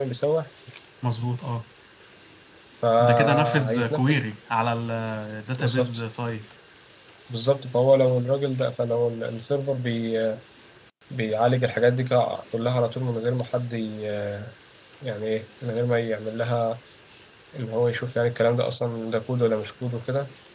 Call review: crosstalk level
present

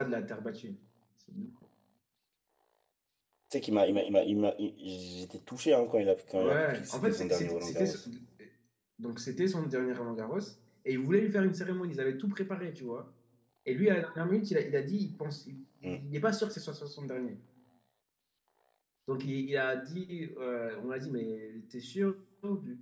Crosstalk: present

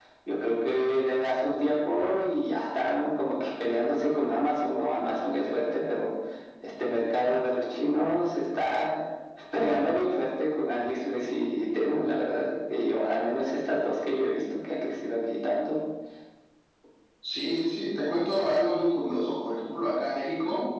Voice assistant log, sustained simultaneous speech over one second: none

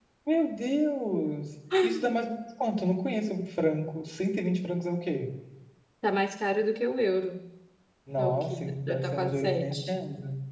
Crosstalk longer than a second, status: present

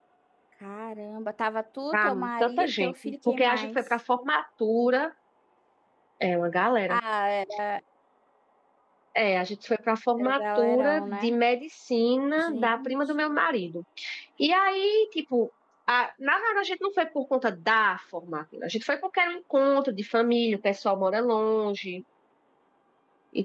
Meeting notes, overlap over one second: present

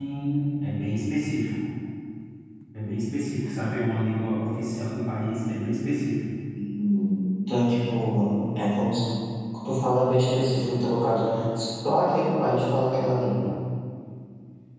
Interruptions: none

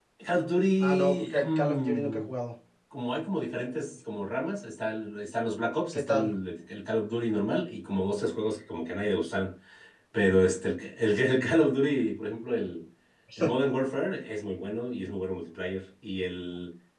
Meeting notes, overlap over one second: present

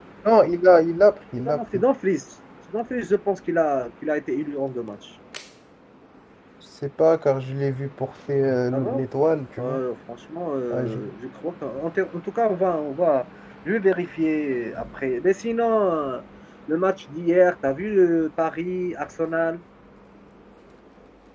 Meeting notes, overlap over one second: none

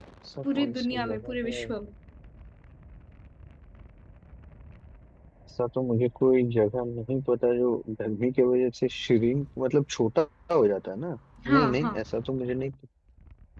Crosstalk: present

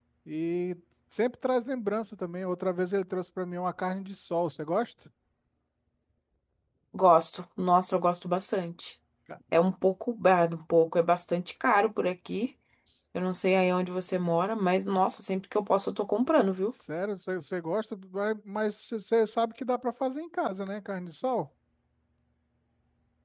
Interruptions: none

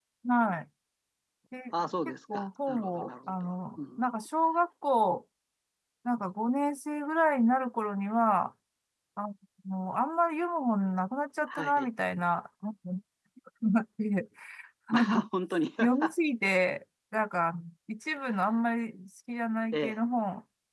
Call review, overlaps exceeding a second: present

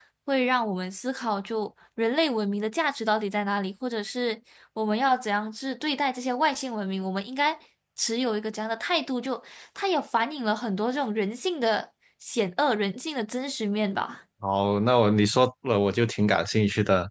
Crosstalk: none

